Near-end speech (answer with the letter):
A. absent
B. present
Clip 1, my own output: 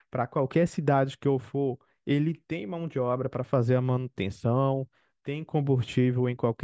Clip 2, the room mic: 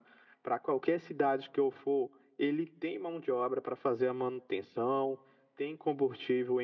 A